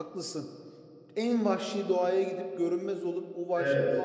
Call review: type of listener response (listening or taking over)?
listening